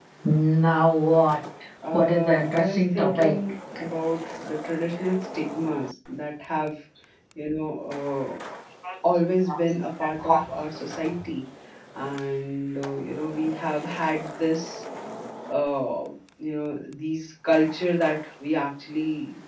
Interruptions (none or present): present